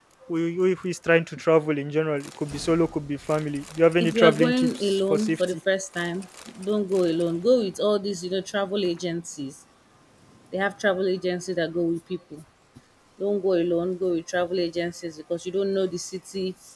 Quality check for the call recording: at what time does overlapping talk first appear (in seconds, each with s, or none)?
4.0 s